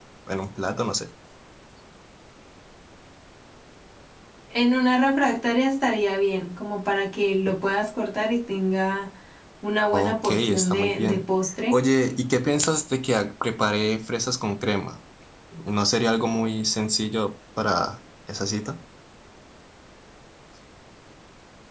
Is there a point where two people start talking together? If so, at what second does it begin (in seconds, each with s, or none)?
9.9 s